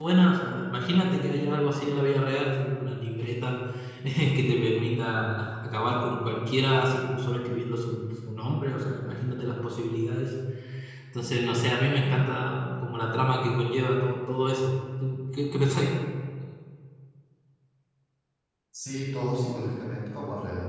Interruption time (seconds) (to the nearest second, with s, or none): none